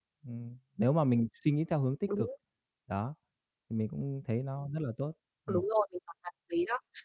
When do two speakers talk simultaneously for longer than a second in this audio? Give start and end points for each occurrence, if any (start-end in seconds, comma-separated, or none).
none